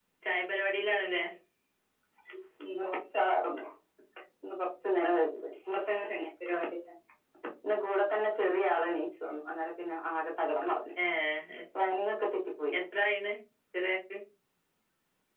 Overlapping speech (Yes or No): No